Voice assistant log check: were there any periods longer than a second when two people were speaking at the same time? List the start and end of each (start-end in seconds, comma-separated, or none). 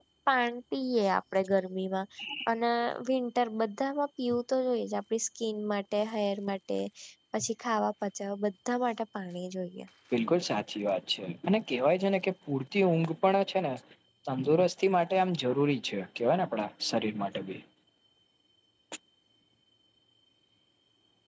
none